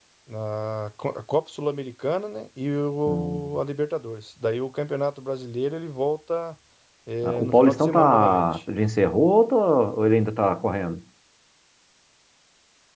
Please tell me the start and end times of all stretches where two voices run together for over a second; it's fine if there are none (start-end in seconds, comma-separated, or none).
7.2-8.6